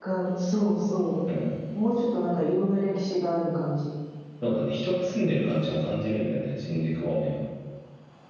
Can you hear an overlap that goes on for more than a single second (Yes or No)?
No